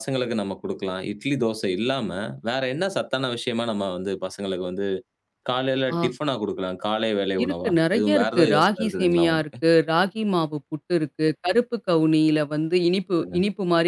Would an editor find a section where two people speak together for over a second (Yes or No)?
Yes